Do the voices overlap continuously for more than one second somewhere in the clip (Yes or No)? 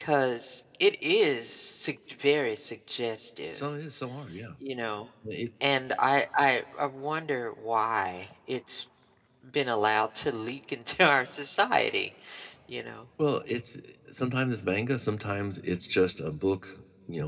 No